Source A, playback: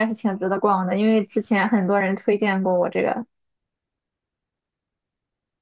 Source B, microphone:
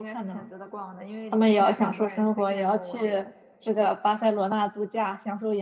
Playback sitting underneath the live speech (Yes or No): Yes